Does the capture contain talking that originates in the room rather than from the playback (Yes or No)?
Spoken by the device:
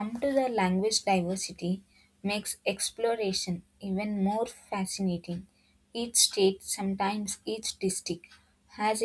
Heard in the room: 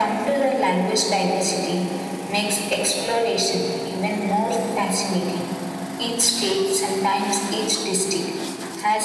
No